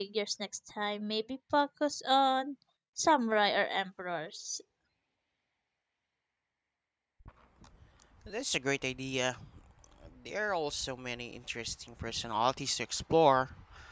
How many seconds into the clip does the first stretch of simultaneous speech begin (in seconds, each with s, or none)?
none